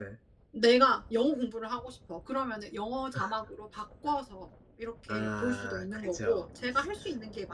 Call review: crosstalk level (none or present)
present